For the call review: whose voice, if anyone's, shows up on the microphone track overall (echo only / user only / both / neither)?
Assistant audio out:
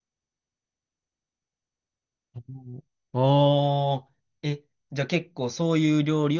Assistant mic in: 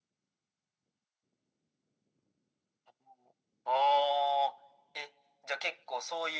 echo only